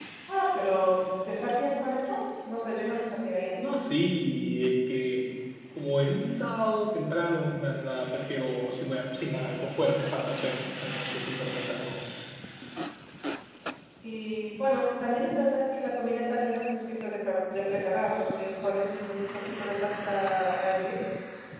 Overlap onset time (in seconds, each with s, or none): none